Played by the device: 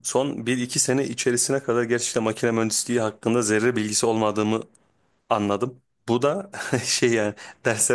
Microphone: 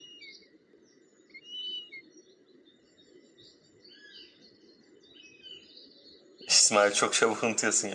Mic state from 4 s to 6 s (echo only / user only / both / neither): neither